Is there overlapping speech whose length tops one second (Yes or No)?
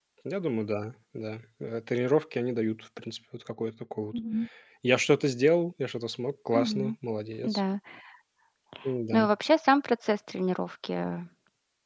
No